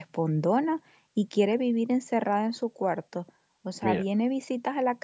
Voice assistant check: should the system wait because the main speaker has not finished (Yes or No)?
Yes